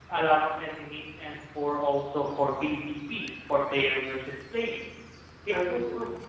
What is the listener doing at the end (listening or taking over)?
listening